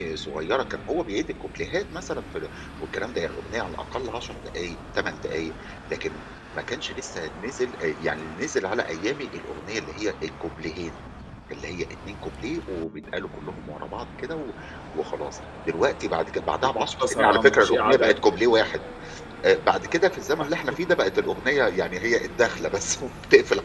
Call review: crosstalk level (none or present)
present